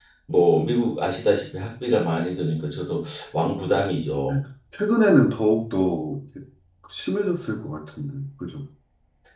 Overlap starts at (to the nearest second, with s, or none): none